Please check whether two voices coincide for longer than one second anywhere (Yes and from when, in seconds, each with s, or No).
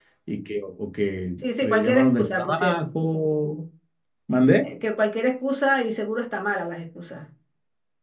Yes, from 1.4 s